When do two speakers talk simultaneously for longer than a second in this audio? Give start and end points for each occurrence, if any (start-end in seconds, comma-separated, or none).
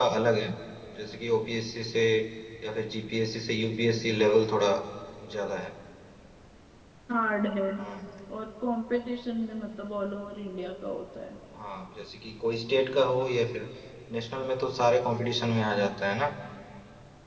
none